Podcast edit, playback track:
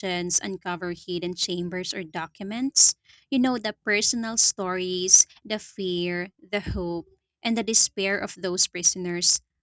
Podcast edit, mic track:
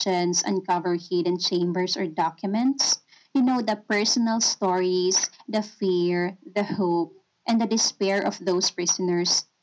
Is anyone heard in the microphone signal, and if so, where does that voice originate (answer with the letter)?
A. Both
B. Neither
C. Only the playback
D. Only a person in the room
C